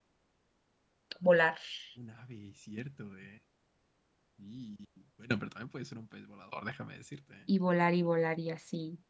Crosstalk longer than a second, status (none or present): none